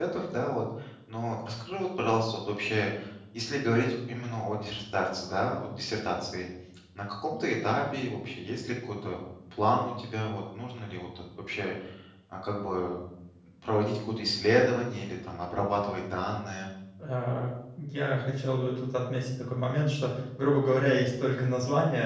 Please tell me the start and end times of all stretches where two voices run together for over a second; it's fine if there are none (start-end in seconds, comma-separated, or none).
none